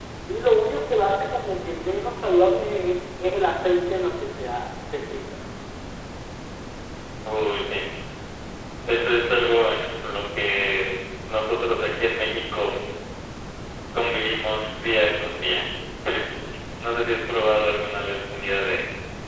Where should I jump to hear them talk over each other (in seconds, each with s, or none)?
none